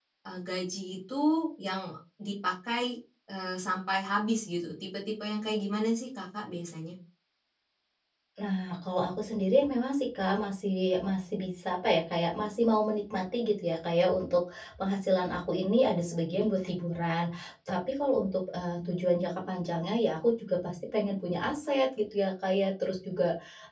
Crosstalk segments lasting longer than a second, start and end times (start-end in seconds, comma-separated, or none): none